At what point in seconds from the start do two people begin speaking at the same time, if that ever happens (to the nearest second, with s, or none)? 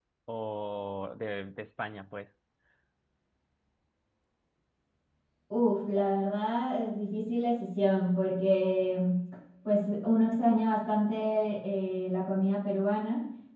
none